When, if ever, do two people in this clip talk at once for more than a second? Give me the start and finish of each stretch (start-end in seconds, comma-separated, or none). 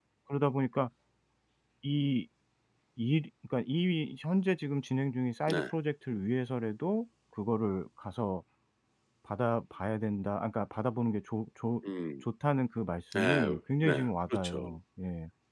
13.1-14.7